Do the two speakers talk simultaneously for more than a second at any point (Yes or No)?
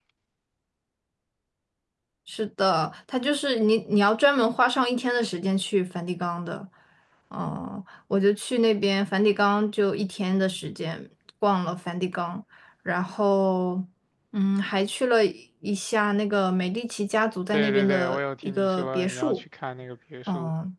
Yes